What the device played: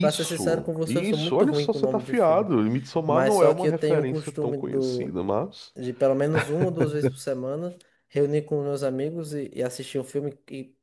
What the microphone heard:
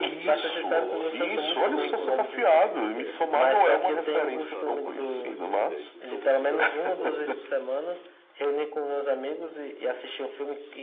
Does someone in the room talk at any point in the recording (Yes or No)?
Yes